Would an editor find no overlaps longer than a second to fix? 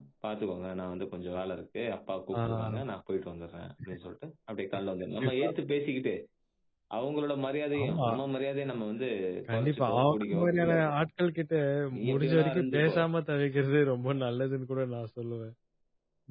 No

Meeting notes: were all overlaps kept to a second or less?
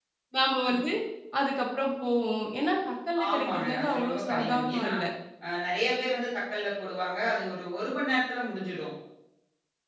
No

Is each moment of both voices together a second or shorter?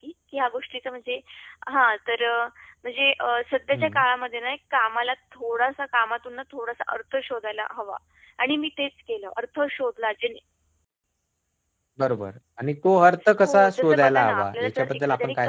No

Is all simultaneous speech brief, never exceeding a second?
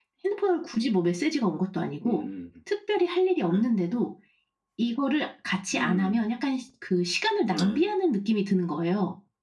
Yes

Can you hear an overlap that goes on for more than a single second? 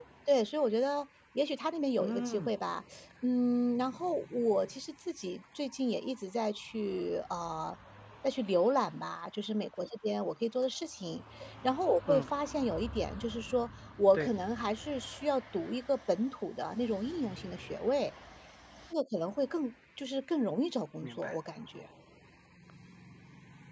No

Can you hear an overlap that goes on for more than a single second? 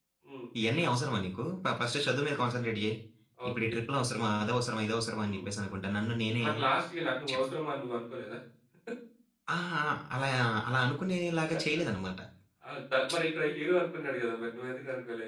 No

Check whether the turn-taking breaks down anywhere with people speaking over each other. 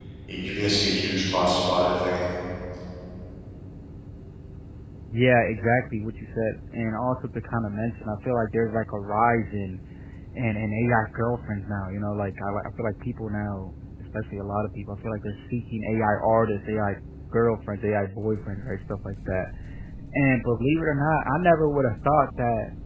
No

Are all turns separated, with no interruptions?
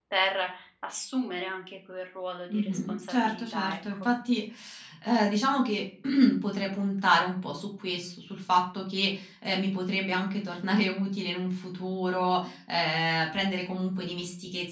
No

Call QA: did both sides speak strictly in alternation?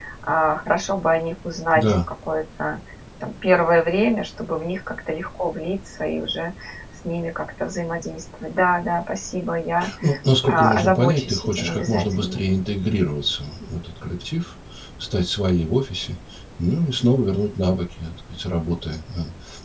No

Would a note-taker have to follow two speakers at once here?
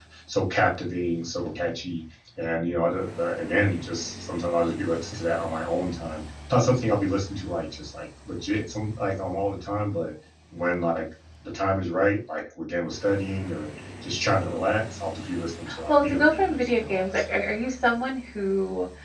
Yes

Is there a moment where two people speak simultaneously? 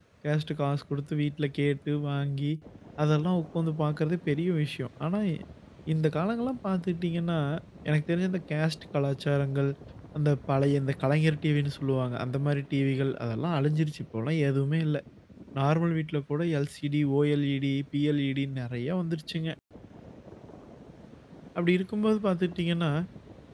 No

